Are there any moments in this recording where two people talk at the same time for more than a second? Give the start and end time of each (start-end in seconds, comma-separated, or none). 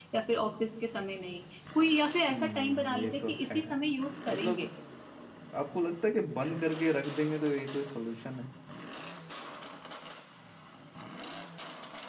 2.3-3.6